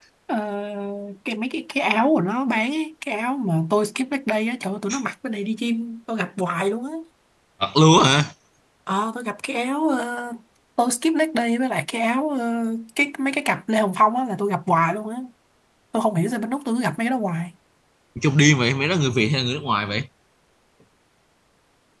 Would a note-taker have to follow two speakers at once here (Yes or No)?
No